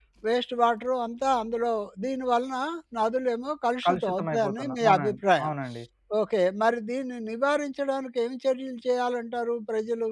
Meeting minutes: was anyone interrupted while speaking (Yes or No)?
Yes